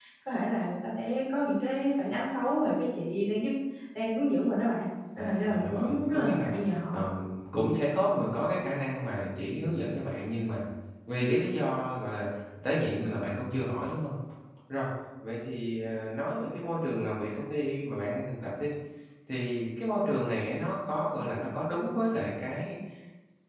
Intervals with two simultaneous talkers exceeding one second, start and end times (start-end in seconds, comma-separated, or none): 5.2-6.5